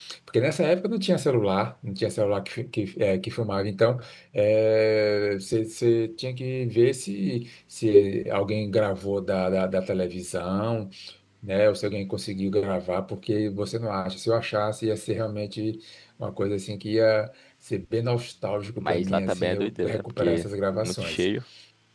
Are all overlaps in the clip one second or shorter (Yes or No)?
No